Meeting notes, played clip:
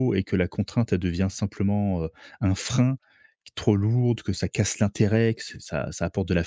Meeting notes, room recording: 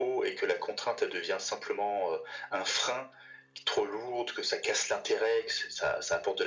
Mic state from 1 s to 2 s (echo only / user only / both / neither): echo only